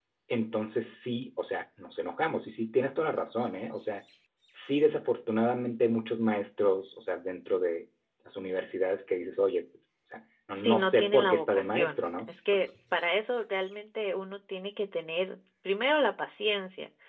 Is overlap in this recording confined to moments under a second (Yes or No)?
No